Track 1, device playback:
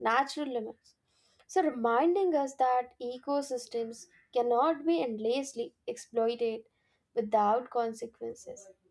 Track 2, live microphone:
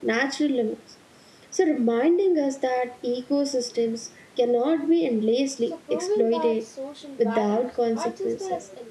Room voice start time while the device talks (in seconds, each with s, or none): 5.6 s